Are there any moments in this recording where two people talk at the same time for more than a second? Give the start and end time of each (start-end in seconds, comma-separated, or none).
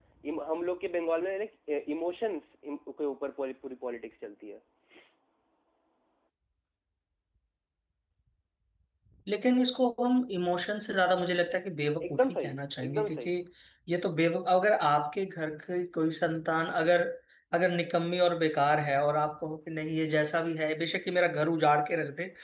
12.1-13.3